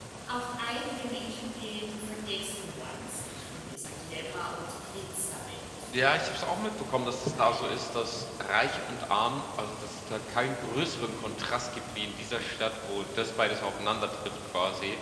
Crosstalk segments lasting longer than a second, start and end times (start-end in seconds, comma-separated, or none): 5.9-7.8